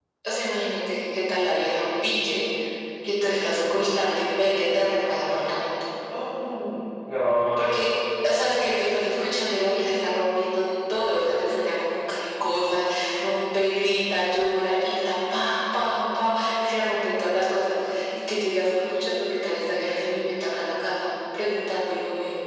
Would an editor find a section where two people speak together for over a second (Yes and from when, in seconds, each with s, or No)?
No